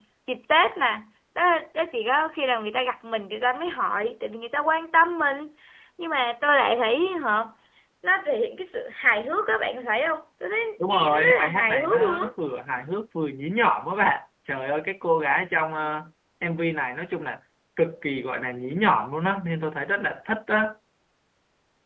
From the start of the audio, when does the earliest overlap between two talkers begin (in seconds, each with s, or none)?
10.9 s